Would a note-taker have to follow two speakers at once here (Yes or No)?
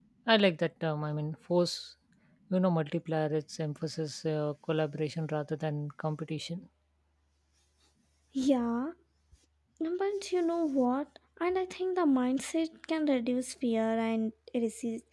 No